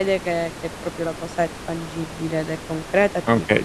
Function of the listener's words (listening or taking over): taking over